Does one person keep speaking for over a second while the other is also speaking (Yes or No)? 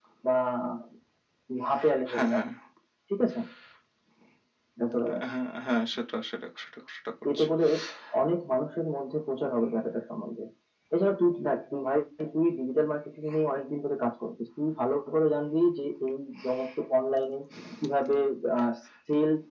No